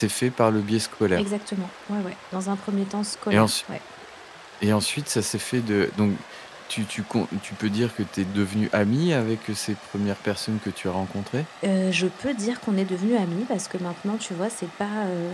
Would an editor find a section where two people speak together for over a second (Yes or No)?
No